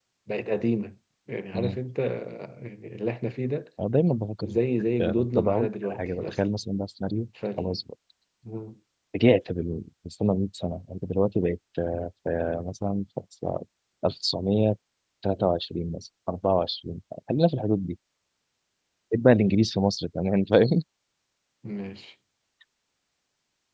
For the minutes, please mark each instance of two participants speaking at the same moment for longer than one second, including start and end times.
5.0-6.4

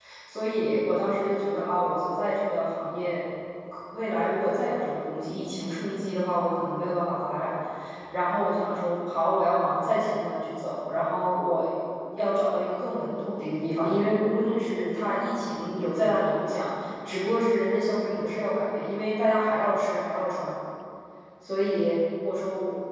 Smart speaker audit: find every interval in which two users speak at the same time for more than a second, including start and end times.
none

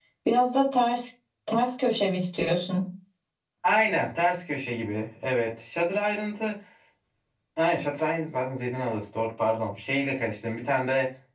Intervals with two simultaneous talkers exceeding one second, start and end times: none

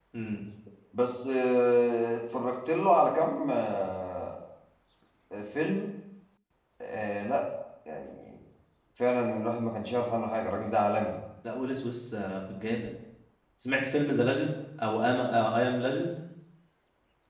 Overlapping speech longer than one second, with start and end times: none

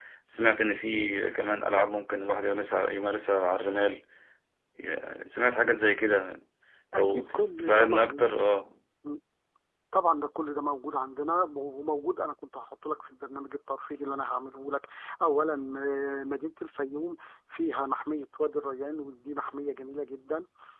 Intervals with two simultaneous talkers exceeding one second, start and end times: 6.9-8.3

